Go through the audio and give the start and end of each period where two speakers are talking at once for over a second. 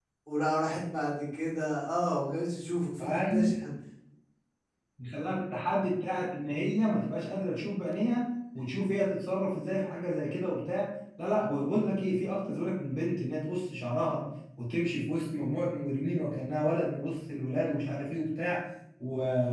none

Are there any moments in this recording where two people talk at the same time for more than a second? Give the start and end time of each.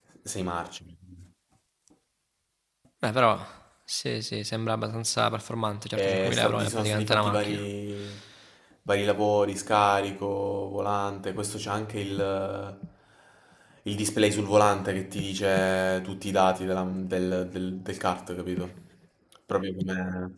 6.0-7.6

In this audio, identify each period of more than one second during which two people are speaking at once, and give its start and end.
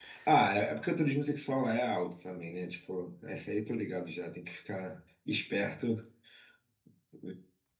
none

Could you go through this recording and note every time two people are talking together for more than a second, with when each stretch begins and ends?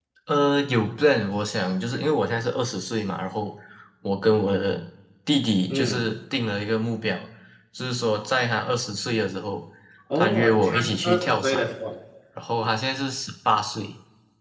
10.2-11.6

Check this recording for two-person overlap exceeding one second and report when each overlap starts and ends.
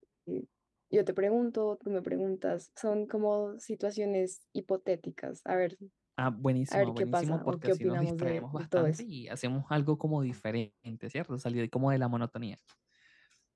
6.7-9.0

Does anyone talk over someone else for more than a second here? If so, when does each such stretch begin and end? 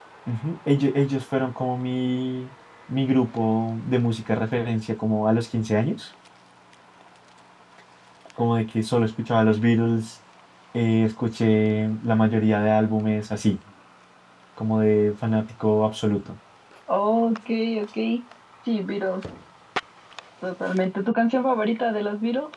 none

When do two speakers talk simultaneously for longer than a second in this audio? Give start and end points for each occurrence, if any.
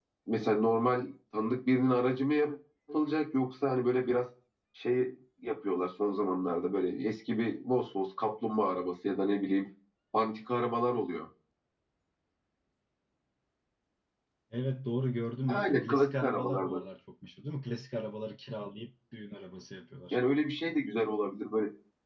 15.5-16.8

